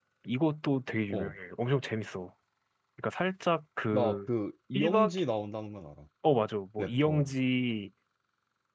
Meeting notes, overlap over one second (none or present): none